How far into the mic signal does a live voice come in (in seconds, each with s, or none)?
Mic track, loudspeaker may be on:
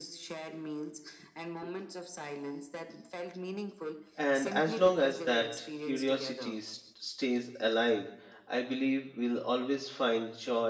4.2 s